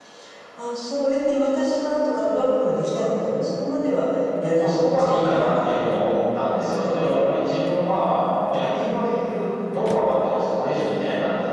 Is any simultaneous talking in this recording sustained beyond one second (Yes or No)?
Yes